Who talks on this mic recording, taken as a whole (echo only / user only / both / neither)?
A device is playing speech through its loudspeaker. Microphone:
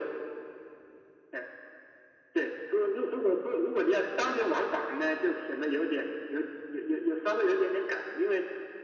echo only